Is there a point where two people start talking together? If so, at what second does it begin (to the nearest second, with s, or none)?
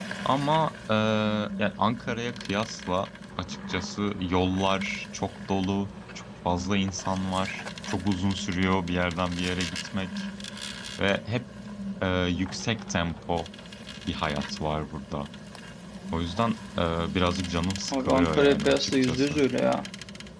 18 s